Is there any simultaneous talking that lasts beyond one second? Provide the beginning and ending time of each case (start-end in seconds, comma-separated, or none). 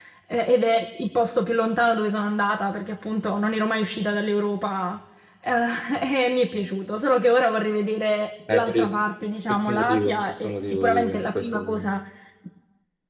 9.5-11.9